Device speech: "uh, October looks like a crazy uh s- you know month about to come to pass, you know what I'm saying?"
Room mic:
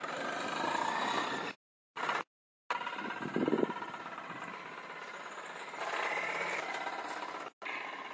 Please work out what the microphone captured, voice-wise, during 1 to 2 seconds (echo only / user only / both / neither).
neither